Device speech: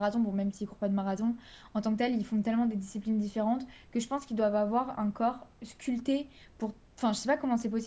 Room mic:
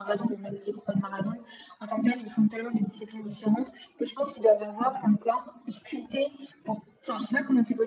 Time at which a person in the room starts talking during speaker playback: none

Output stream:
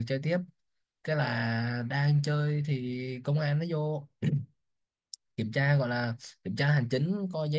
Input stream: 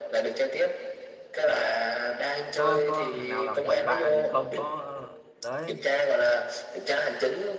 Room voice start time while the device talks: 2.5 s

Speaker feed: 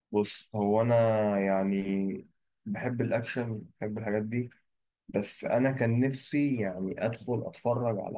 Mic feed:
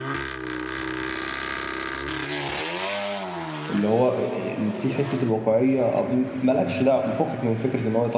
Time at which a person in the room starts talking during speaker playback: 3.7 s

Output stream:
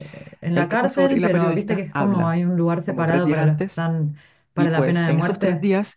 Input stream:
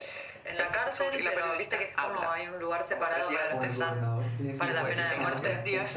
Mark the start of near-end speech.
3.4 s

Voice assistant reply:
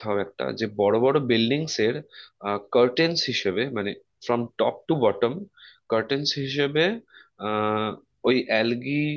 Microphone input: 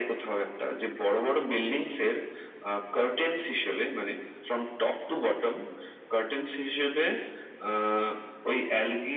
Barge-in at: none

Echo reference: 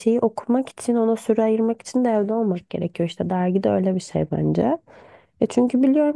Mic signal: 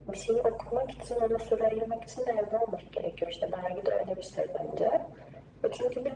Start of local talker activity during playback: none

